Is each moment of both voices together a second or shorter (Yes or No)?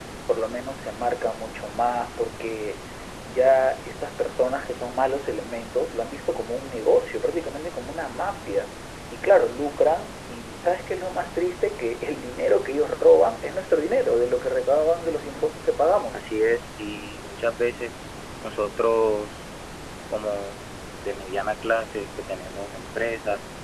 Yes